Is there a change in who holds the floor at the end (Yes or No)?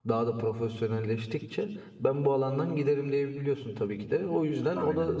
No